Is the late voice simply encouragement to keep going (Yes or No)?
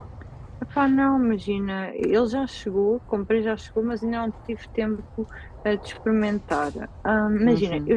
Yes